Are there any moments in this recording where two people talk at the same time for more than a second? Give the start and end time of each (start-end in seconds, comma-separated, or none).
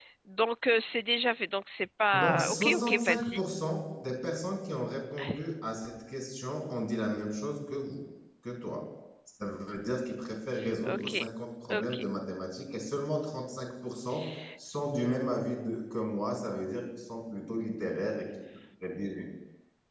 2.1-3.4